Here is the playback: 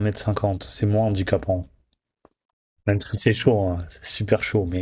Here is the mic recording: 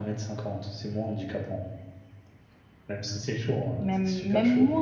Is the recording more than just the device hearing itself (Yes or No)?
Yes